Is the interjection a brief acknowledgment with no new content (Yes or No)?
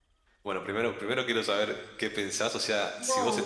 Yes